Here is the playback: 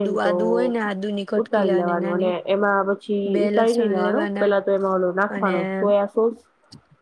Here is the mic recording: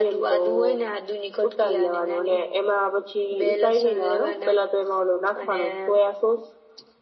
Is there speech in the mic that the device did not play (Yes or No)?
No